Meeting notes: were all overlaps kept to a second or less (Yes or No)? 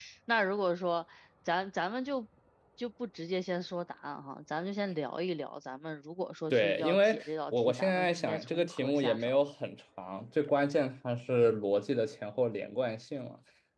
No